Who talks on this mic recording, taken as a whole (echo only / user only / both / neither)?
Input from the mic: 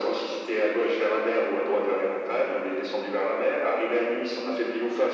echo only